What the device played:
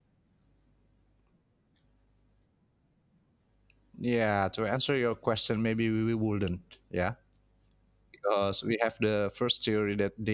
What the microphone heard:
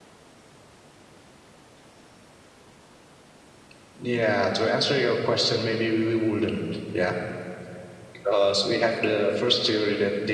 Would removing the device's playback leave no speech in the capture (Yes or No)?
Yes